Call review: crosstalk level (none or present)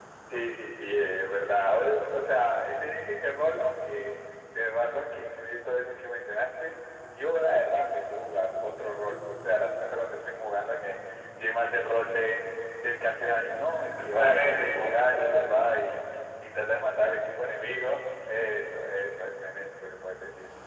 present